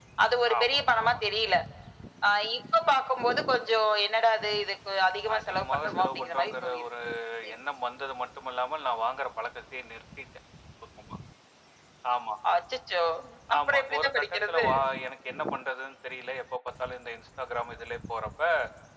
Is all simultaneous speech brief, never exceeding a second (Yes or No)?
No